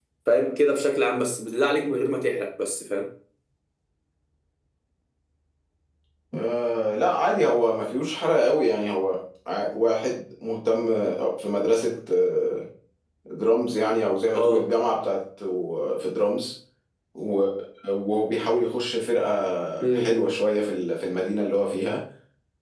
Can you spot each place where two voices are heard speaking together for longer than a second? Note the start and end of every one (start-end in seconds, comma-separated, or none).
none